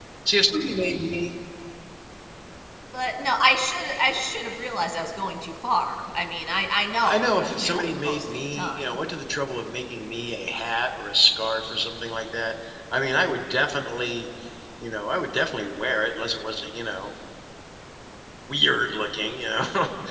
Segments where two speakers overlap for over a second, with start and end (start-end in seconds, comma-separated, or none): 7.0-8.8